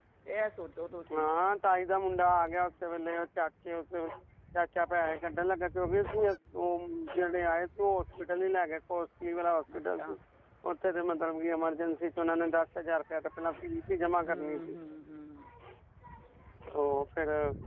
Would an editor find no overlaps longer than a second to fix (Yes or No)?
Yes